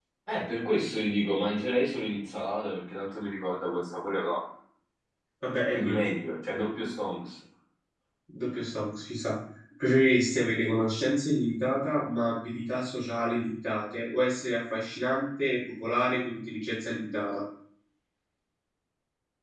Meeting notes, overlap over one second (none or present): none